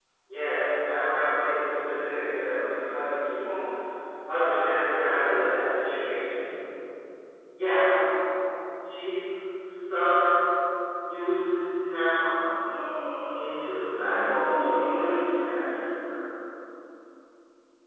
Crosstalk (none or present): present